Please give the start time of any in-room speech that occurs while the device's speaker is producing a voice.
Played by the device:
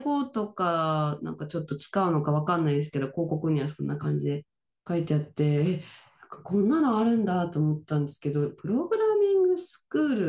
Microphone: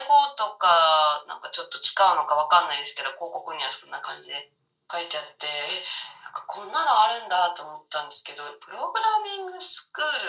none

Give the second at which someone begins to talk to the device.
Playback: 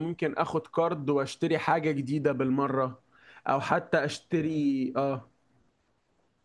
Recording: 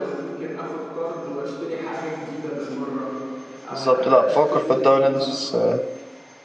3.7 s

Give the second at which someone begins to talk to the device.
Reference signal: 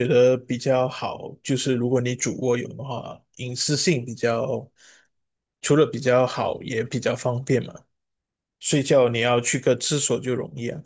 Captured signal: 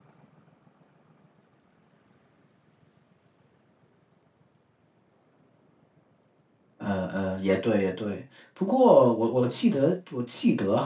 6.8 s

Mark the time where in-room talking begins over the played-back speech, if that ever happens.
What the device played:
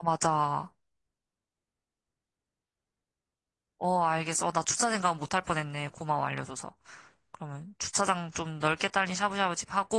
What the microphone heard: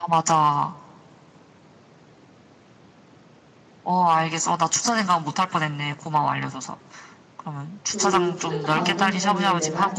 7.8 s

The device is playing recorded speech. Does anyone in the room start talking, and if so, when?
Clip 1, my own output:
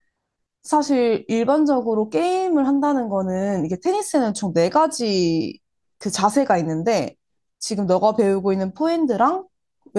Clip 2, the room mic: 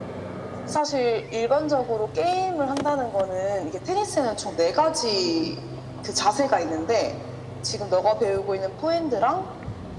none

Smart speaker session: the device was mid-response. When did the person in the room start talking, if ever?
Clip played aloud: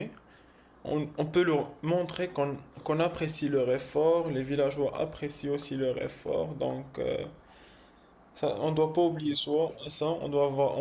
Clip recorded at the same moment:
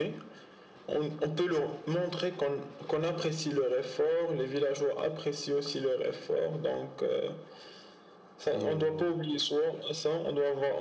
8.5 s

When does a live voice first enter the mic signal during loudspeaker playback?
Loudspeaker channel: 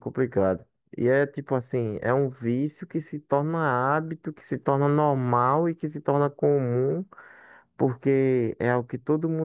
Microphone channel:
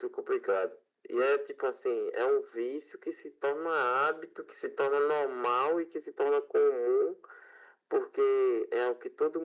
none

